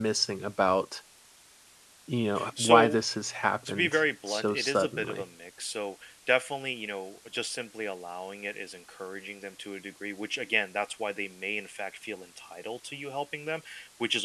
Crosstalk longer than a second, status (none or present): present